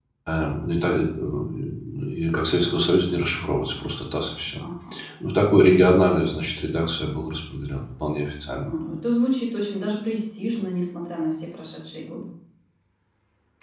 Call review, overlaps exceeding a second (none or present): none